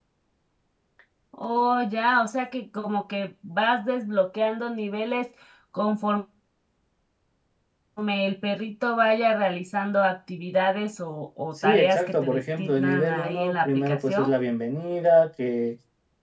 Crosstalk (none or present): present